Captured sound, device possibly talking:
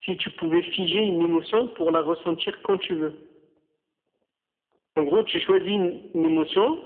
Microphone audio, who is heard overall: echo only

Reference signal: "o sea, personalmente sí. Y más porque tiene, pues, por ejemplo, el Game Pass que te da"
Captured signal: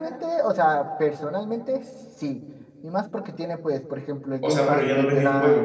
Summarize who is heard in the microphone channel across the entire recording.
both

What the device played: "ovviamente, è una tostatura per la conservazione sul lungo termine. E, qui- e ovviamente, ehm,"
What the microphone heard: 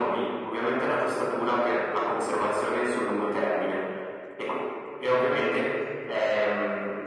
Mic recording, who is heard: echo only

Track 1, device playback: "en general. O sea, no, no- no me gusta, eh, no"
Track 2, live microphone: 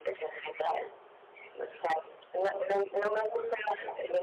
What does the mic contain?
both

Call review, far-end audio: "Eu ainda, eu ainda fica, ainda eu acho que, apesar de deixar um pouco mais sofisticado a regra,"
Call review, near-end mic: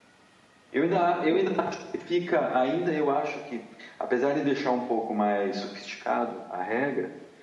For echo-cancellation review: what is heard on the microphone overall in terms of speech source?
echo only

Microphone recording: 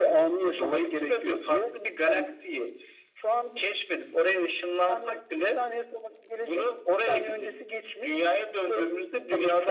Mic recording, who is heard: echo only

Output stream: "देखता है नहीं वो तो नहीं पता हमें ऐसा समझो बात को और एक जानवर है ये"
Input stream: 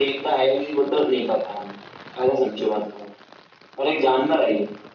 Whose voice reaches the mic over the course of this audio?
echo only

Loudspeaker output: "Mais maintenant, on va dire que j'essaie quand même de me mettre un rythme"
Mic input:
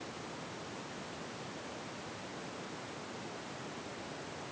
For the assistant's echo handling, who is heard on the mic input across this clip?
neither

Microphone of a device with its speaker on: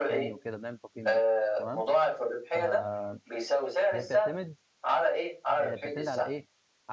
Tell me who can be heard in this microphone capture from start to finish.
both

